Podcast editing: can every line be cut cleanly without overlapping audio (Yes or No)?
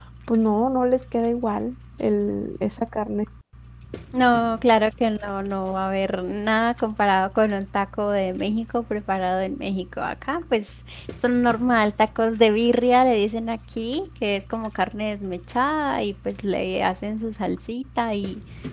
Yes